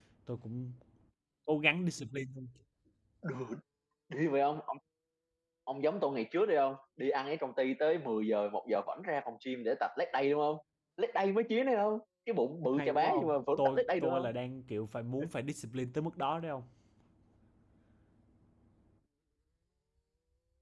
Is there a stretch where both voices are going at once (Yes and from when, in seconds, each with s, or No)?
Yes, from 12.8 s